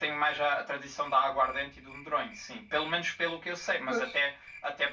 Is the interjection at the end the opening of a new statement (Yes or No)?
No